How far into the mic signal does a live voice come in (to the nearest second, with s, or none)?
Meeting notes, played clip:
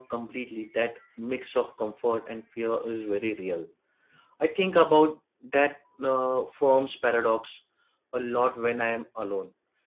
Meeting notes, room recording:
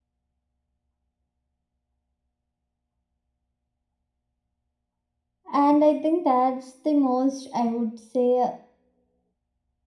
6 s